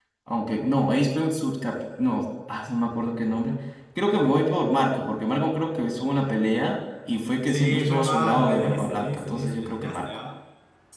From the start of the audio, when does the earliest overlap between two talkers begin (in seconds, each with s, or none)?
7.5 s